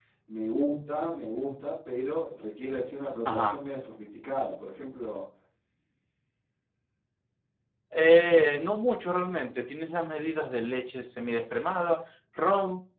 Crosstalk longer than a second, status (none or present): none